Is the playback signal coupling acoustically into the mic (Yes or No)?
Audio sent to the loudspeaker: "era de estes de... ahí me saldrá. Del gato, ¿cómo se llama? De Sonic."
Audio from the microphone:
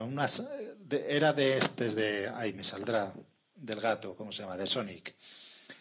Yes